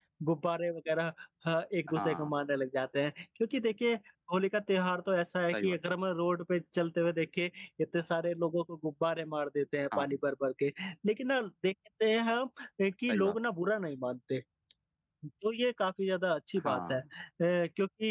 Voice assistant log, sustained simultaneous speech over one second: none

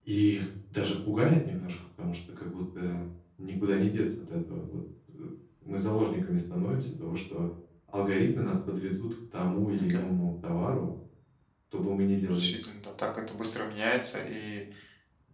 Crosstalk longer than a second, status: none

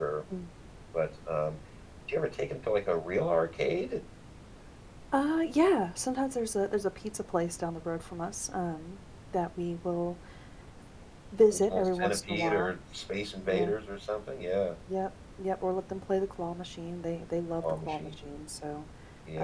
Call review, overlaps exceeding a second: present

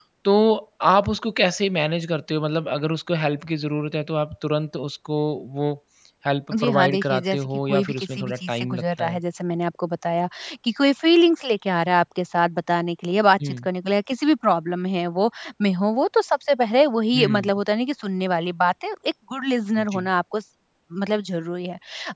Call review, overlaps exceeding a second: present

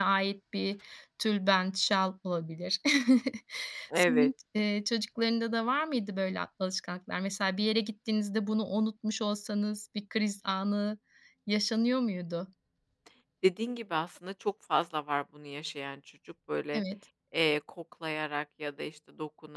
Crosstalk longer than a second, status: none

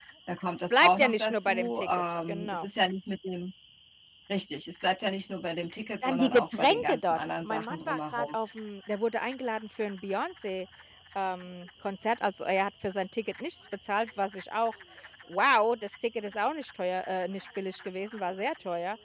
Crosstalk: present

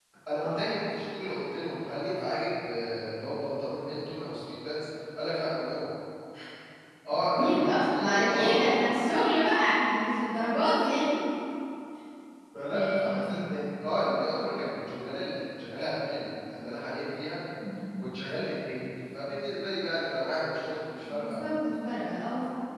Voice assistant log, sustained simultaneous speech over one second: present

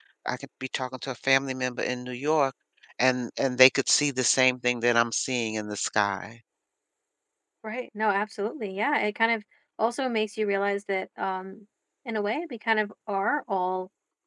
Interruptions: none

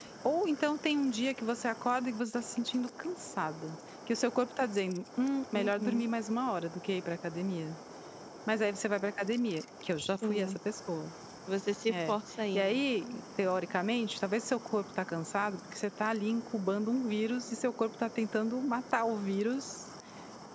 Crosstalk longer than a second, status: none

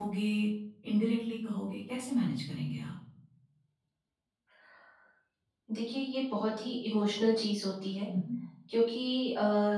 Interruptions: none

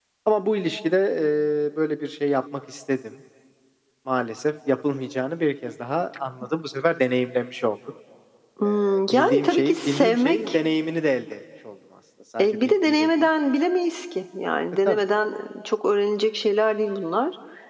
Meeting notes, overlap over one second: present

